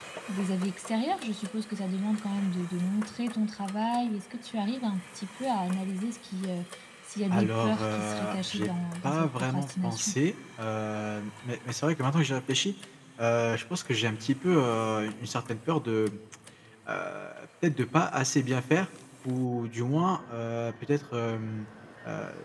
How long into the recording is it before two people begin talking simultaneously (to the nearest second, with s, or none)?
7 s